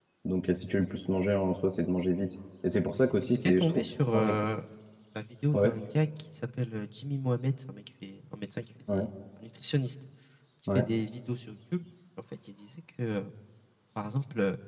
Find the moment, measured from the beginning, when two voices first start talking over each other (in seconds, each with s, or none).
3.0 s